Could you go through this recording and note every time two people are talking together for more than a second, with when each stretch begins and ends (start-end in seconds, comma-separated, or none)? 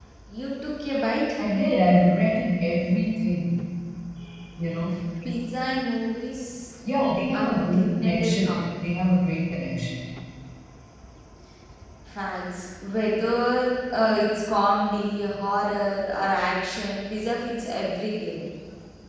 7.3-8.6